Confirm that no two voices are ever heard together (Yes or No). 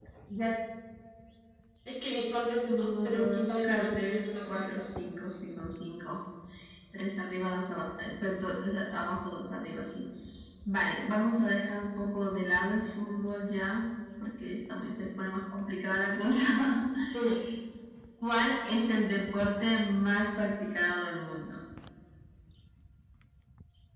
No